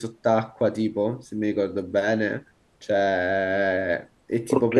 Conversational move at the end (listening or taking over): listening